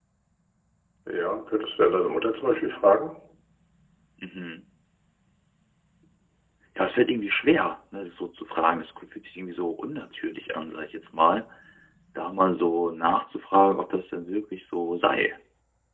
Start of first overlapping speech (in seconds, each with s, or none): none